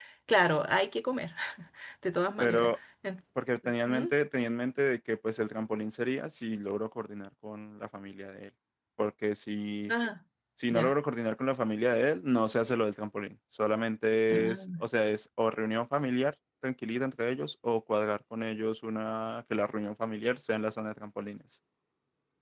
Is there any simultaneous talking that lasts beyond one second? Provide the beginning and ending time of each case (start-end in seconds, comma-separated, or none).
none